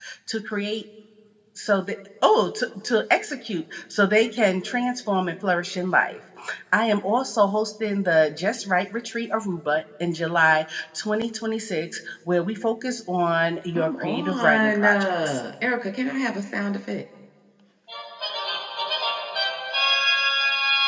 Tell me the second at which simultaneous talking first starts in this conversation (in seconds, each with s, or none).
13.8 s